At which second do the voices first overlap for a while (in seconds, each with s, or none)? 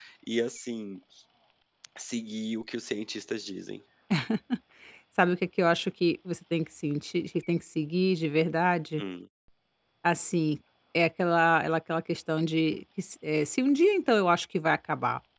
none